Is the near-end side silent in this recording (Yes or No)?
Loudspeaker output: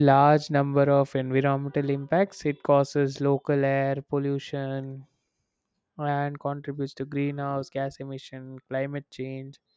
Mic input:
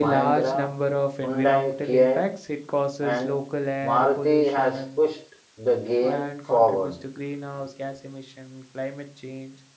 No